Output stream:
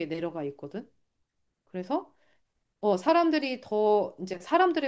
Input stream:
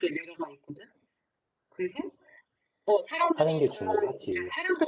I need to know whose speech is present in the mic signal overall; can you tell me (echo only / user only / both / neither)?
both